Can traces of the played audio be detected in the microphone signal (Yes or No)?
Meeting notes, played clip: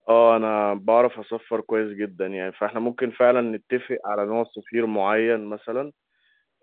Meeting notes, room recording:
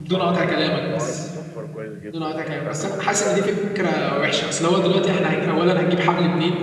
Yes